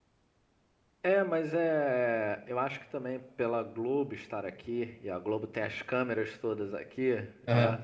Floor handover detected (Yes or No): No